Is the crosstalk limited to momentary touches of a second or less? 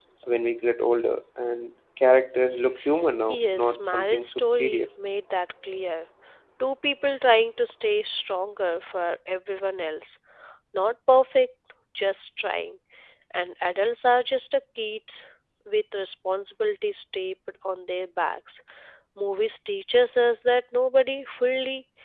No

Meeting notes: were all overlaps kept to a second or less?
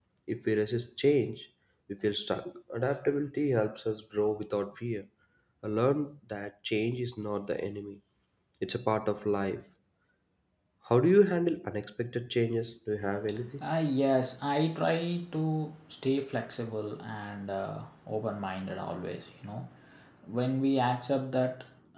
Yes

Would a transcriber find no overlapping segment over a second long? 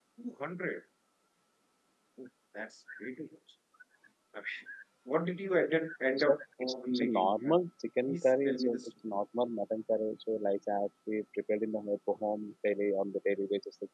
No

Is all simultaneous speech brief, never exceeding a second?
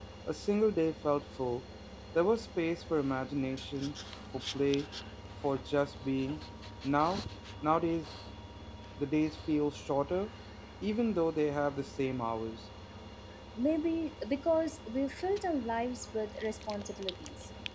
Yes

